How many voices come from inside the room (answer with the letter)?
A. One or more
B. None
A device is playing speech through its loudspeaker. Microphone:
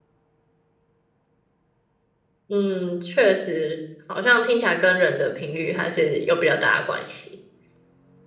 A